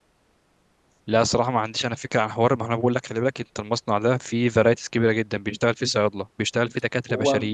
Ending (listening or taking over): listening